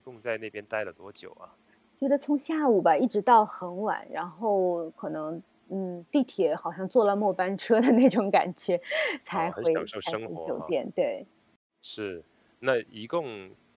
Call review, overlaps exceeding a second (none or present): present